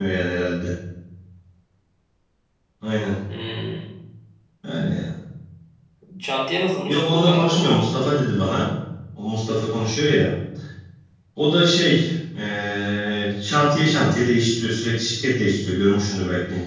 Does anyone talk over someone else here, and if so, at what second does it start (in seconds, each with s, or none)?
6.9 s